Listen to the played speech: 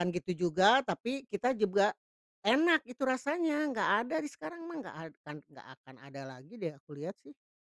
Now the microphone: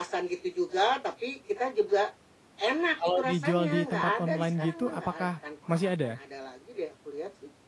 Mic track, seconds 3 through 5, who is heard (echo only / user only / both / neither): both